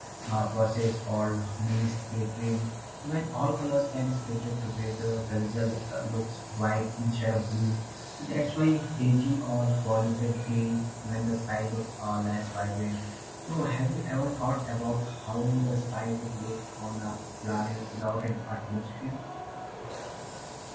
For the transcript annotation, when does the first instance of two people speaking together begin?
none

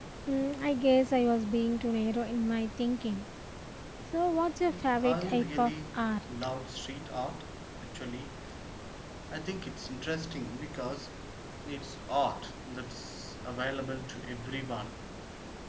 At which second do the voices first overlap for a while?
4.7 s

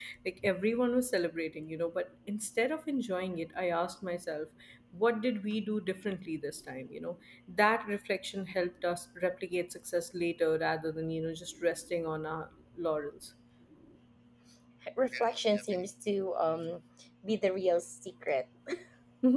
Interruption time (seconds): none

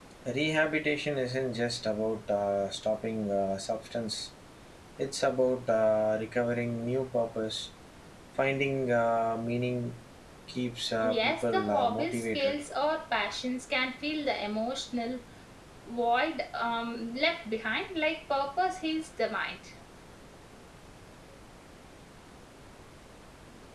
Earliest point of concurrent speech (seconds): 11.0 s

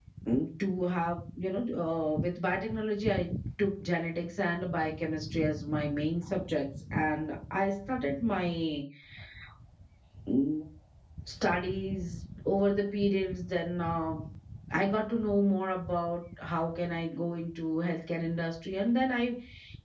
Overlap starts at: none

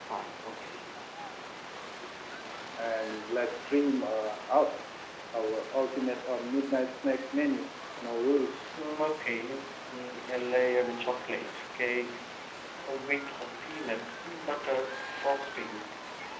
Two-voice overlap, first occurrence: none

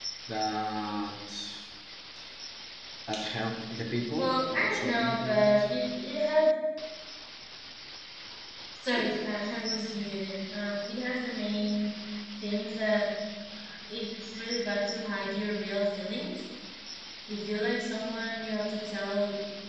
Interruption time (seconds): 4.2 s

